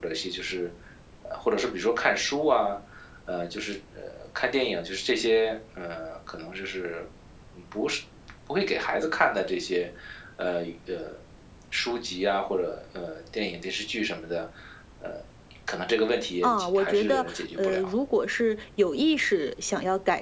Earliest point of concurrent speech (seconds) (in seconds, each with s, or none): 16.4 s